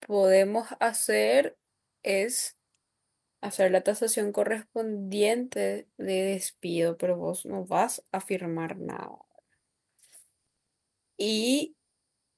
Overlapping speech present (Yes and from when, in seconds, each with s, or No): No